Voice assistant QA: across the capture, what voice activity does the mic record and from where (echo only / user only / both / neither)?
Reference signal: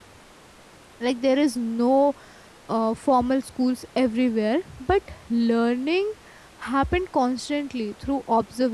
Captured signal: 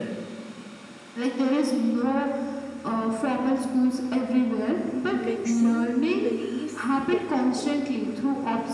both